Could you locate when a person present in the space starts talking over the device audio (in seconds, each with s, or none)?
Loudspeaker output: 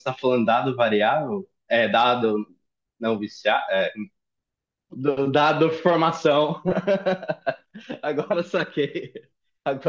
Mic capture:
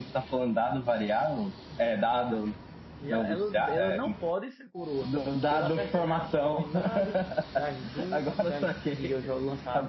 3.0 s